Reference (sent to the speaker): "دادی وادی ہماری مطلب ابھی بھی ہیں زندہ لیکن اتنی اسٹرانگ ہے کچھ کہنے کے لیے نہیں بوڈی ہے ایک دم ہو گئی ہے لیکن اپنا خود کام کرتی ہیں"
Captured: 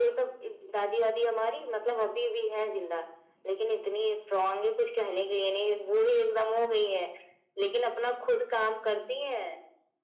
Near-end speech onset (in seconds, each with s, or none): none